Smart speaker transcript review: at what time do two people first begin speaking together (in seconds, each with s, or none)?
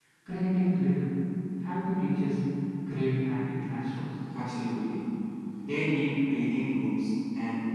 none